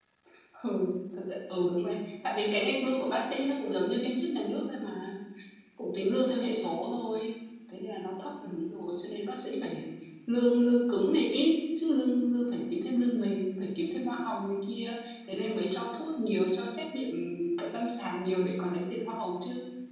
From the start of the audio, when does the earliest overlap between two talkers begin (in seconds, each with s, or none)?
none